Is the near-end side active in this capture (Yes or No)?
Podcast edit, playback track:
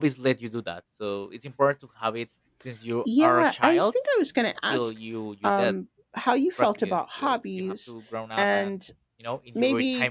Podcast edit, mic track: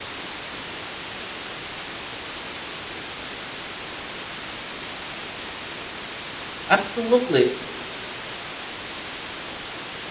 Yes